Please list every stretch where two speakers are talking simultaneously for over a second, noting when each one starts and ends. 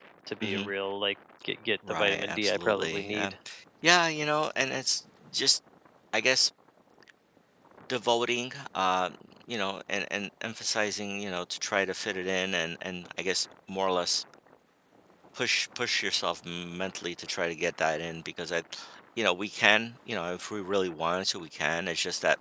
1.9-3.3

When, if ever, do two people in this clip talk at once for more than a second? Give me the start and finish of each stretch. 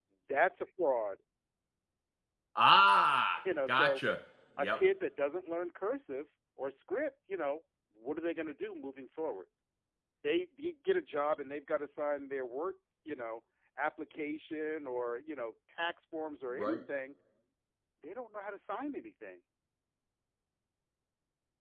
none

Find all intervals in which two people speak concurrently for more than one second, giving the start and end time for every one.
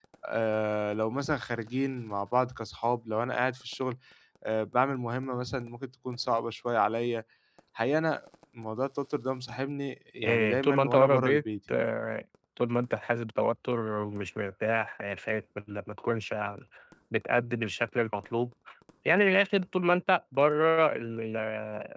10.2-11.8

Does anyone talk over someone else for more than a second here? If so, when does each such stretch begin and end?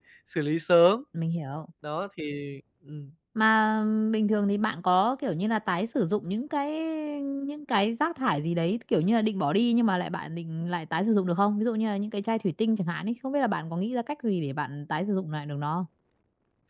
none

